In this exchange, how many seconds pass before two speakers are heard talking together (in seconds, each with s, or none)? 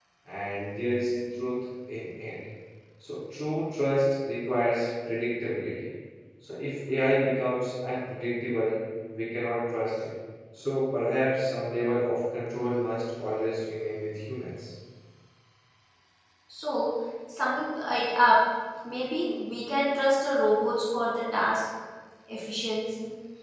none